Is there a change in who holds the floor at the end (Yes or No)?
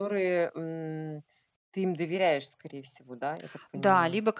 Yes